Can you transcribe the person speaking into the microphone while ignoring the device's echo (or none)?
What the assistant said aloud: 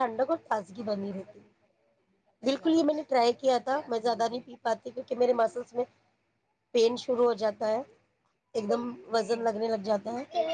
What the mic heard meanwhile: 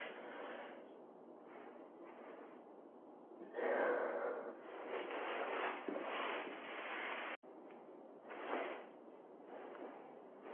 none